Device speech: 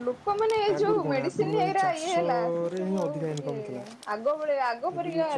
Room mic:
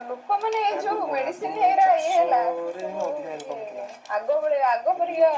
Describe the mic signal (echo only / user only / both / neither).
echo only